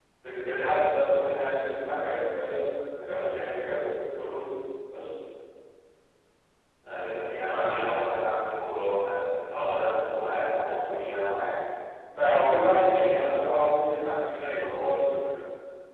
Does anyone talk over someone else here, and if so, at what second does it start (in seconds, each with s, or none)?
none